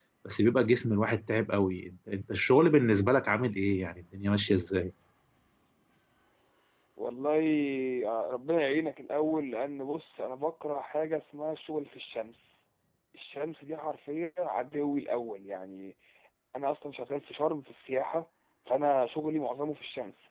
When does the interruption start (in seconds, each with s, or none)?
none